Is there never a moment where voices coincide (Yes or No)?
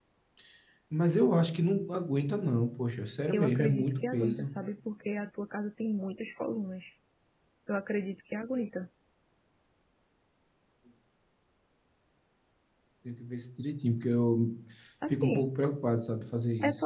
No